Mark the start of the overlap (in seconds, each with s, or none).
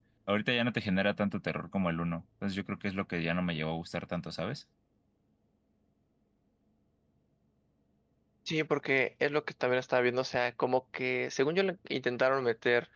none